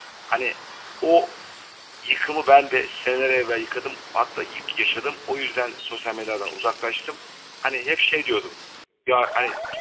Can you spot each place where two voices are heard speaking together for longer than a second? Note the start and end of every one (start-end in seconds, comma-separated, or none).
none